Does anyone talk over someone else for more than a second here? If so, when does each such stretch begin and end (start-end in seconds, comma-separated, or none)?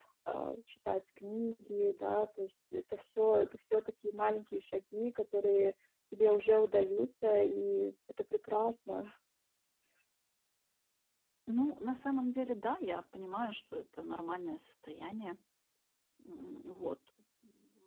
none